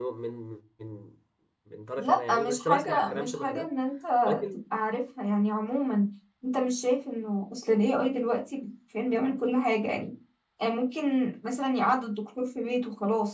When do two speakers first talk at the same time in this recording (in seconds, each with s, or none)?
2.0 s